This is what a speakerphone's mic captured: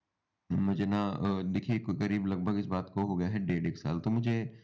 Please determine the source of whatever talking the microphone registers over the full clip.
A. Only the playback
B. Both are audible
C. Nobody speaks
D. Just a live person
D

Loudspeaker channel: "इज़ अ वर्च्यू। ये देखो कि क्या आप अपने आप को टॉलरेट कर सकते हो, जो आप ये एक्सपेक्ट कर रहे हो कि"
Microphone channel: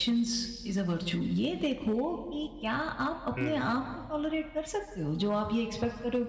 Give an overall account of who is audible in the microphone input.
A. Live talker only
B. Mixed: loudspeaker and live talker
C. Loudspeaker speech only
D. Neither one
B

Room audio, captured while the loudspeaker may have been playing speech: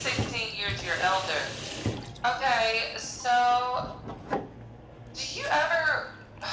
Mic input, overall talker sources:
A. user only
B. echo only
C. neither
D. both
B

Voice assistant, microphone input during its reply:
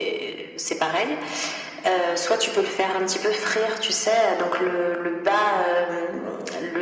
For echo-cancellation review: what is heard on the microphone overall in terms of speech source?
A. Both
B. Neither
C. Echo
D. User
C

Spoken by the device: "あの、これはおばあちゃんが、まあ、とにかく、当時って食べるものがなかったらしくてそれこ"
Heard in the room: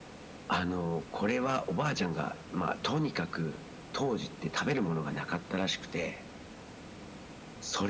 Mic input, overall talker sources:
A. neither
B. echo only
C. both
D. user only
B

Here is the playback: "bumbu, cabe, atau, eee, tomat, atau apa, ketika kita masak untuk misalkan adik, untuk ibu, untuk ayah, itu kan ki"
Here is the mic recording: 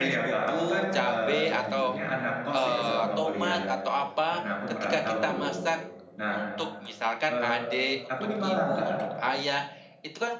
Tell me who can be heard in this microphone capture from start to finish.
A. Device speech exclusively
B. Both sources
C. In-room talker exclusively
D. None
B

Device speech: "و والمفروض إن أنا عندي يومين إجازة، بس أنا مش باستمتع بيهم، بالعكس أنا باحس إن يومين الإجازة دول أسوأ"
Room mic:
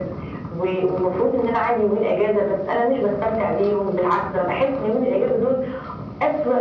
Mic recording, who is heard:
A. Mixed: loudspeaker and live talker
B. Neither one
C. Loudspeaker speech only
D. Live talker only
C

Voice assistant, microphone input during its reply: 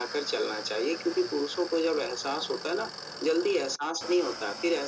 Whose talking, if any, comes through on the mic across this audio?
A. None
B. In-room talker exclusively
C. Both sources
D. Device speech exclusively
D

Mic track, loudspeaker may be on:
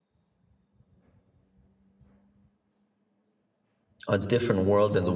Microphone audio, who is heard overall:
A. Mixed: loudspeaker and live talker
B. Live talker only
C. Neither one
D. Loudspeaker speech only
B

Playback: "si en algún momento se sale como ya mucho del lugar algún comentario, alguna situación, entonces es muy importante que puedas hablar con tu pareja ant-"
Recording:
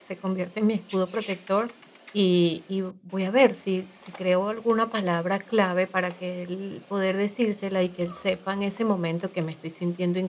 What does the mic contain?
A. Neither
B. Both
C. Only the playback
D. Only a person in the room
D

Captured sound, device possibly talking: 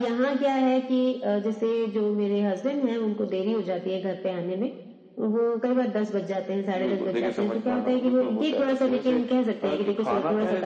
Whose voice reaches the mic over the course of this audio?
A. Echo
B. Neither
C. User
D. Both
A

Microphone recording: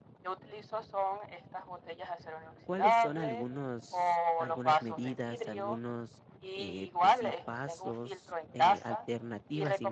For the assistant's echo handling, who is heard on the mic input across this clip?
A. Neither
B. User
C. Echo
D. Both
D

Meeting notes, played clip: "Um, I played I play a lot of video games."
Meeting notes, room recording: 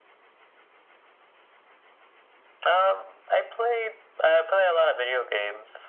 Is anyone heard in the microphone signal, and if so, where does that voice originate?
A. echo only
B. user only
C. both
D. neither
A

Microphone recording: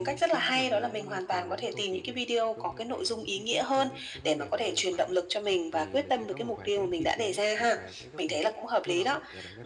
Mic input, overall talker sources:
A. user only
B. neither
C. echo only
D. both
D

